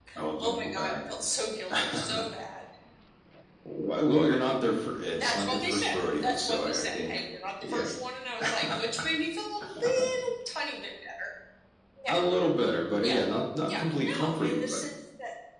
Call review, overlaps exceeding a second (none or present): present